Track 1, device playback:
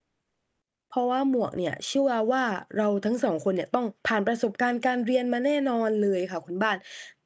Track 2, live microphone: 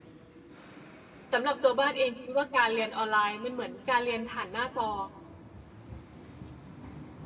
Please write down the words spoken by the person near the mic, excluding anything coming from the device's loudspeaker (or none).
สำหรับตัวบ้านเองคิดว่า การเรียนออนไลน์มันเหมือนการเรียนผ่านหน้าจอ